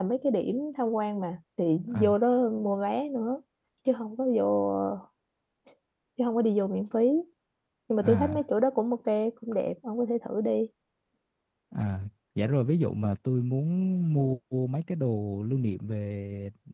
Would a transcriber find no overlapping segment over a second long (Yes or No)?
Yes